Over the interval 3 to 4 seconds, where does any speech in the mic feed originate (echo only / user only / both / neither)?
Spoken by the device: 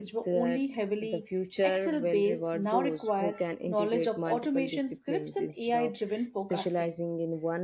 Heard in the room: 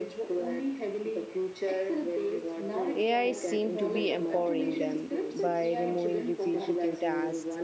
both